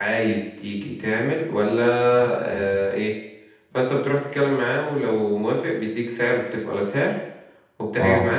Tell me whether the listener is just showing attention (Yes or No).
Yes